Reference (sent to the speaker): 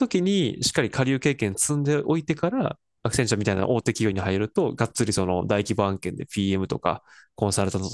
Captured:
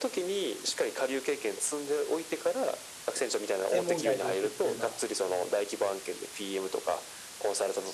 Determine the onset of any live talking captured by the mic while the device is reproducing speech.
3.7 s

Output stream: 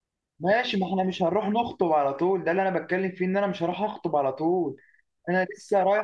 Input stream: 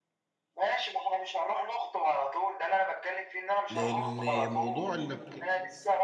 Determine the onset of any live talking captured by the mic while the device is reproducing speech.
3.7 s

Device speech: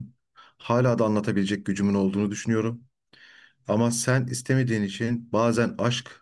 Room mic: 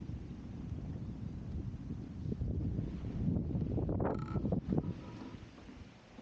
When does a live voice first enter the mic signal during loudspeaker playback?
none

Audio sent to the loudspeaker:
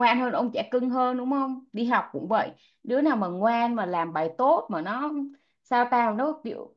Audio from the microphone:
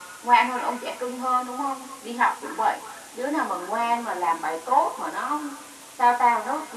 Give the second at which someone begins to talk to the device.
none

